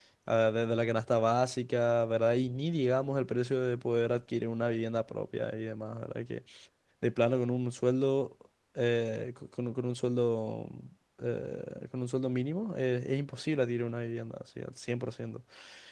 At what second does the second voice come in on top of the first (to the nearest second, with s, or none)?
none